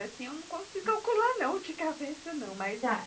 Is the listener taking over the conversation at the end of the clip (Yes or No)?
Yes